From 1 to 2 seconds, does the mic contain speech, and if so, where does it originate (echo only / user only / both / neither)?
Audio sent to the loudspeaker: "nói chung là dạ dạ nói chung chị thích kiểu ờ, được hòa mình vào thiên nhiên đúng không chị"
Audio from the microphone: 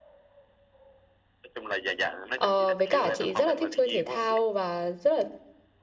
echo only